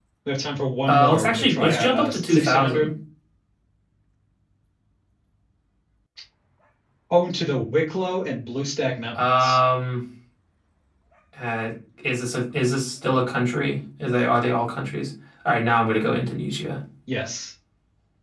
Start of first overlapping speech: 0.9 s

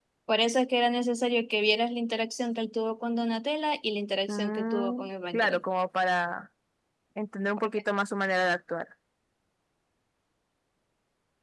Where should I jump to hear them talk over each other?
4.3 s

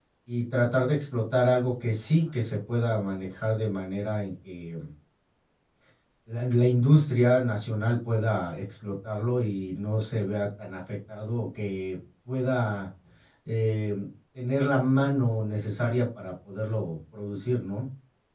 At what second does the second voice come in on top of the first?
none

